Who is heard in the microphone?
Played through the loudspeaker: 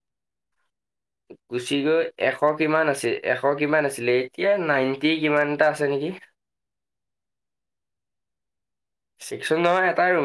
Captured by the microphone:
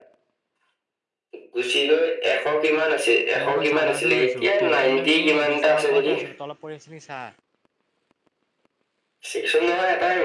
both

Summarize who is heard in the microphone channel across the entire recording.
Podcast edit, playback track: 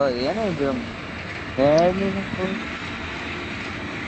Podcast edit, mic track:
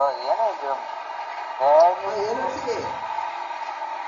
both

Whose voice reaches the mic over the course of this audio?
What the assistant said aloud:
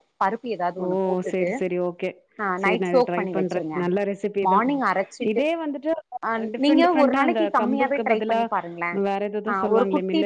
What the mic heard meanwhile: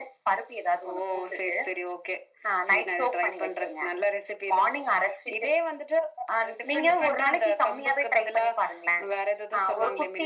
echo only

